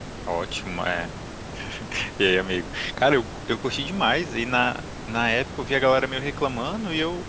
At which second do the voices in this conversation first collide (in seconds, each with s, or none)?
none